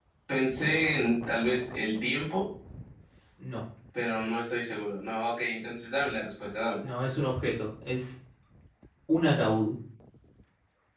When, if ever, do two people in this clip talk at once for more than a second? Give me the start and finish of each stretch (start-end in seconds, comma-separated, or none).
none